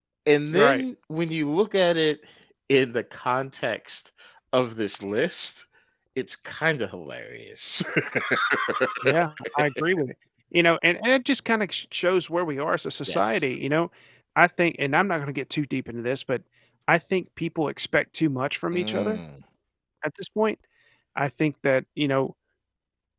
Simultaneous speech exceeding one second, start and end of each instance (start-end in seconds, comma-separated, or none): none